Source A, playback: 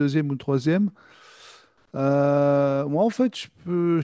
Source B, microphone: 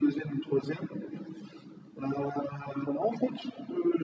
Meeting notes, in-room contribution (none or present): none